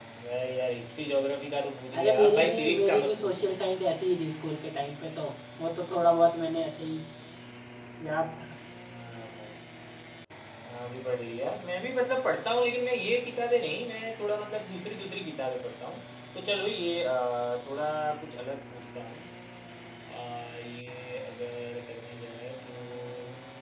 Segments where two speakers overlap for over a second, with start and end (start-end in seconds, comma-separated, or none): 2.0-3.5